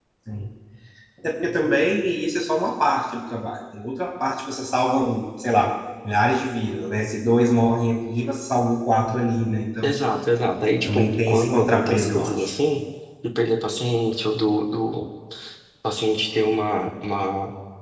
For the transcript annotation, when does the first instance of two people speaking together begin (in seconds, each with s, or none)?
10.9 s